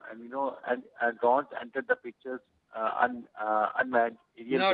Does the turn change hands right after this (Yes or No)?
Yes